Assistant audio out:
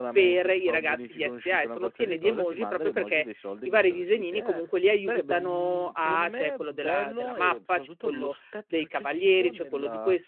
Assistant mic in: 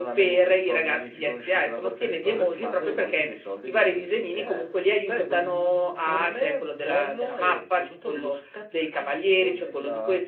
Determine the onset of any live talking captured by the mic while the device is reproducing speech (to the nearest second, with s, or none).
none